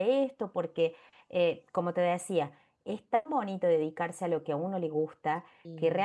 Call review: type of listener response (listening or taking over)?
listening